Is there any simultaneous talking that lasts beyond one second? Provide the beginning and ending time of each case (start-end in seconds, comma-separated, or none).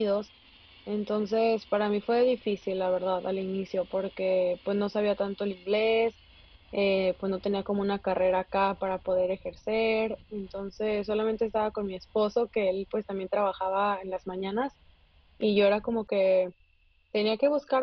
none